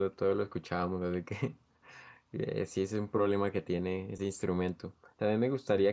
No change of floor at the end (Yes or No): Yes